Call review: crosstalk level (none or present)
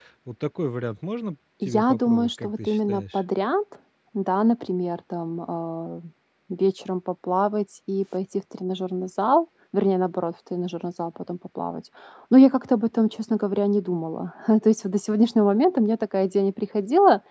present